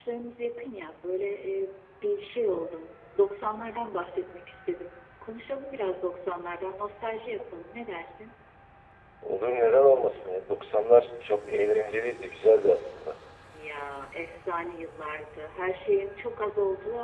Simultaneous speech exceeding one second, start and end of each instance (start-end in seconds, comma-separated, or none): none